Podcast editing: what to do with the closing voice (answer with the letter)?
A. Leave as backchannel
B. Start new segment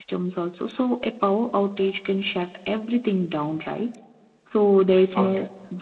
A